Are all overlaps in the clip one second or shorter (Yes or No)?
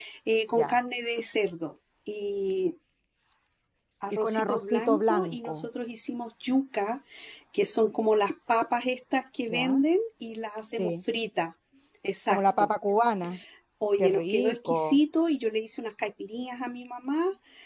No